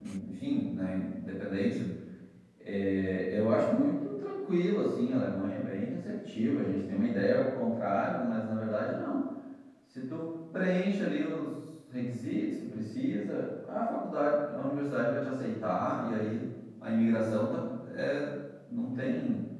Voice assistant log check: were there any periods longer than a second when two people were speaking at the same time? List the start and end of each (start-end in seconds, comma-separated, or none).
none